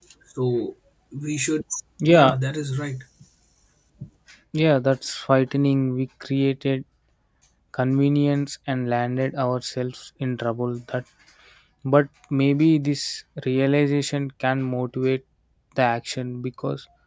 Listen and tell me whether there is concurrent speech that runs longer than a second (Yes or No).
No